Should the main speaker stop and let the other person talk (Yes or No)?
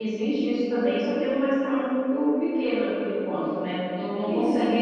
No